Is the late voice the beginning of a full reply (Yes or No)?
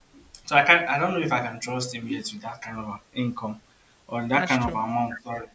No